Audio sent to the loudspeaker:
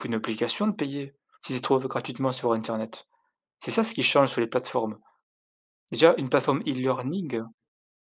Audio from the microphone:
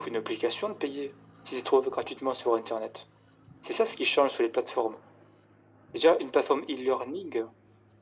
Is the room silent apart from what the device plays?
Yes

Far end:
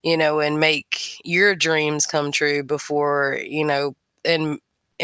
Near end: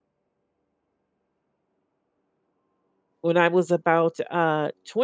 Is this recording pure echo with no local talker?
No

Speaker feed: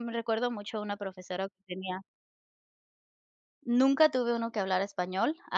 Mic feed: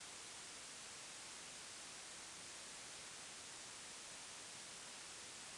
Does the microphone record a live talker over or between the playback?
No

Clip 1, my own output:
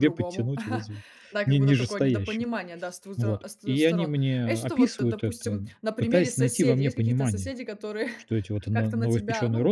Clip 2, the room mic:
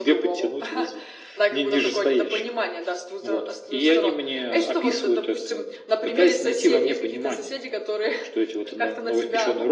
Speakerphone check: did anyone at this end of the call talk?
No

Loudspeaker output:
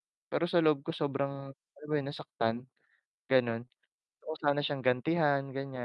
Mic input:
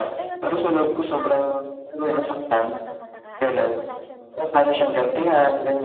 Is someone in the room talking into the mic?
Yes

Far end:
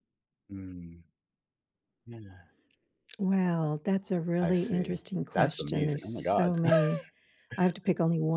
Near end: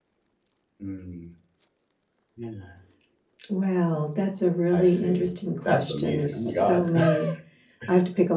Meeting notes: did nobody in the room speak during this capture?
No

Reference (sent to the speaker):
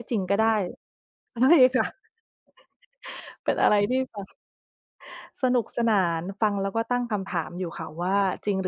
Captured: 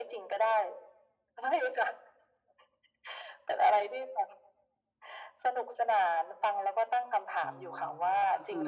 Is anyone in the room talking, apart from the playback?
Yes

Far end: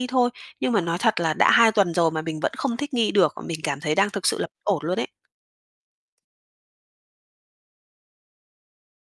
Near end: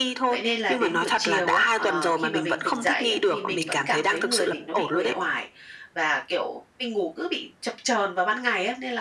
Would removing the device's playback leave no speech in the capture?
No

